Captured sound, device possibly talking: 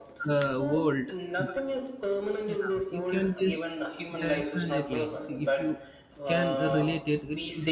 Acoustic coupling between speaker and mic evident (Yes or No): Yes